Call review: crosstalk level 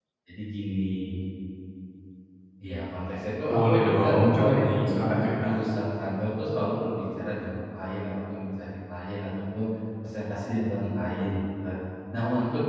present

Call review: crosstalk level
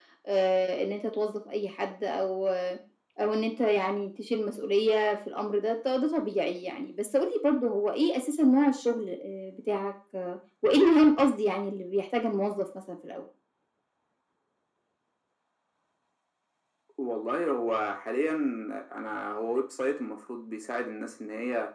none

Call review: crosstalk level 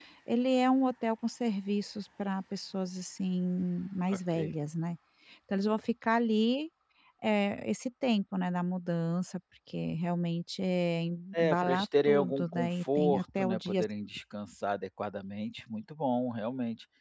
present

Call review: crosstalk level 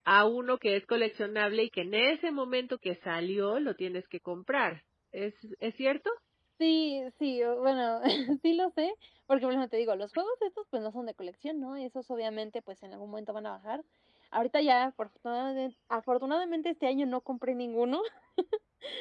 none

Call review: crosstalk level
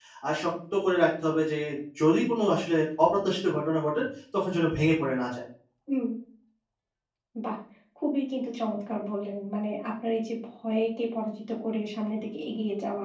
none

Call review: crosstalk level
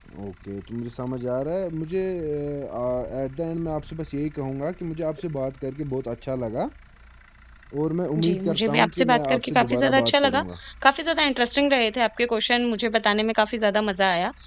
present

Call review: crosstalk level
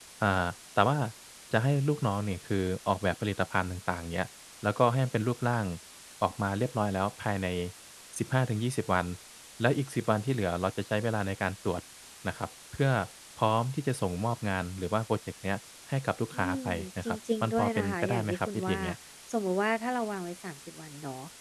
present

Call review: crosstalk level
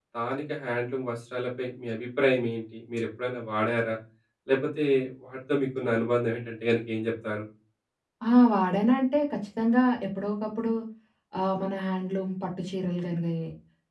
none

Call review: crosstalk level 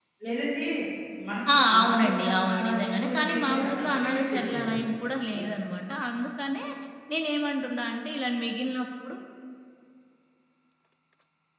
present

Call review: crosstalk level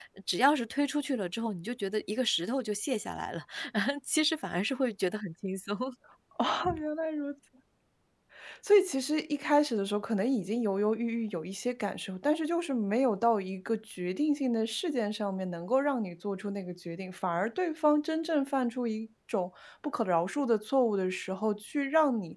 none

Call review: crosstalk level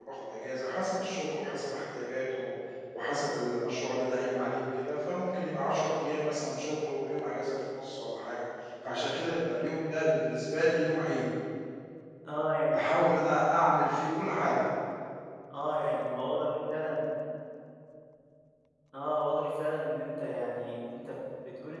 none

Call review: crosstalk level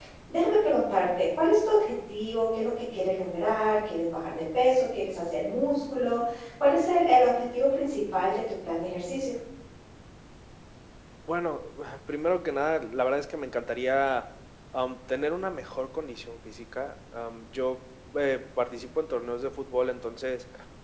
none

